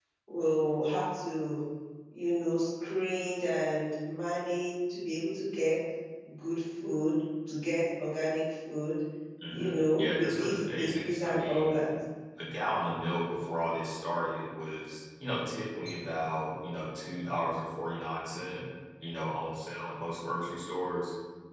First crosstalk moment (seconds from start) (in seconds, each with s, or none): 9.5 s